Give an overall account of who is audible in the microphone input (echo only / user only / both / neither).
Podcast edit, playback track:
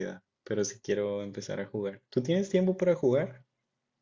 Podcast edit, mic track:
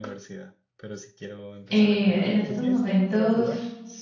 both